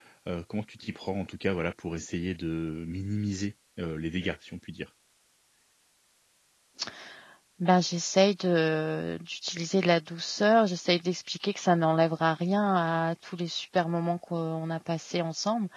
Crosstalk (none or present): none